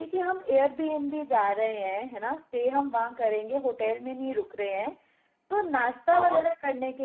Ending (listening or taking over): listening